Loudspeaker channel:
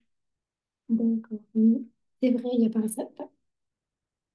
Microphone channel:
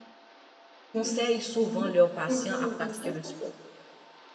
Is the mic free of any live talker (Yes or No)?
No